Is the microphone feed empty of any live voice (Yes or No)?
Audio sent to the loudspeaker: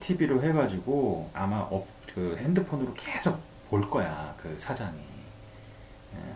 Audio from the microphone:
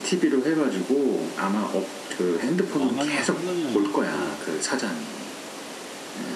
No